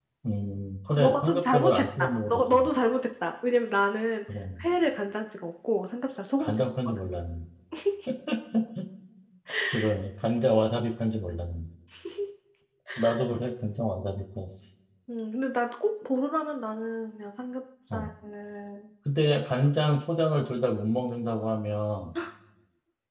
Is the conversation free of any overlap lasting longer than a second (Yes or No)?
No